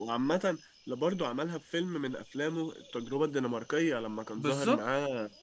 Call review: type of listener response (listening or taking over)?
listening